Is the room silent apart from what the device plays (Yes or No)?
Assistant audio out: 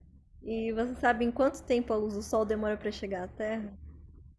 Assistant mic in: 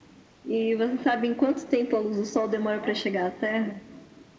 No